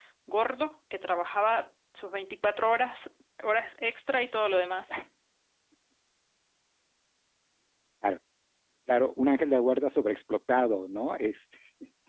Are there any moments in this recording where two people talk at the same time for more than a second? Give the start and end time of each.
none

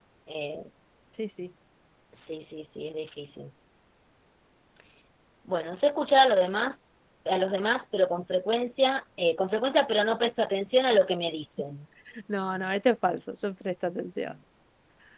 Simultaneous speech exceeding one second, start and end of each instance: none

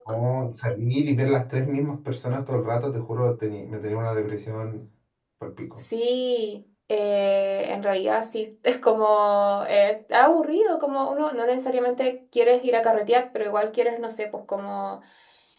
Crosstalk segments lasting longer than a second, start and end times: none

